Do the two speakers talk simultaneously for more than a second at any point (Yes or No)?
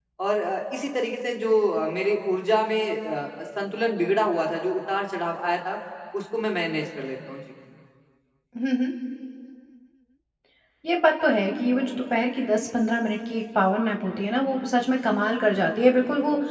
No